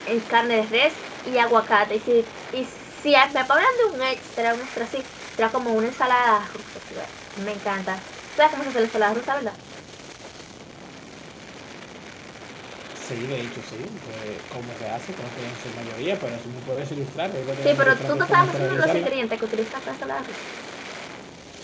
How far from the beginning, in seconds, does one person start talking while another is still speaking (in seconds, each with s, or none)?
17.6 s